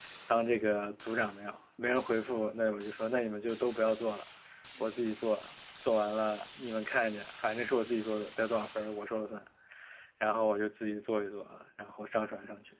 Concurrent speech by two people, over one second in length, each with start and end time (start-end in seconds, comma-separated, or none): none